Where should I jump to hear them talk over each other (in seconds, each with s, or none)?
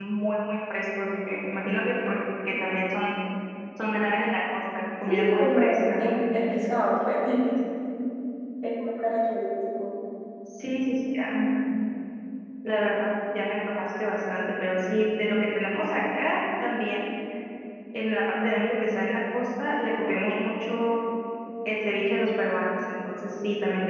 5.1 s